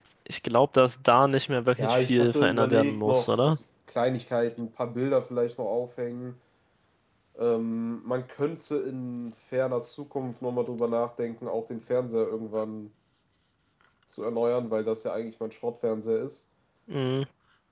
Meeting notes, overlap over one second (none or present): present